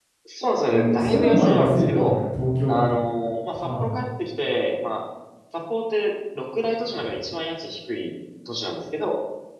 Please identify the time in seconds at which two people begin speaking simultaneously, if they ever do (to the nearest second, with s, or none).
1 s